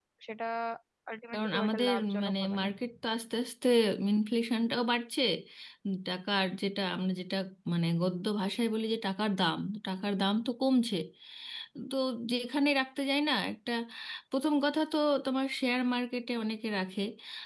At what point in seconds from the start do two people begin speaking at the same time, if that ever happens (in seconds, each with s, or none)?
1.3 s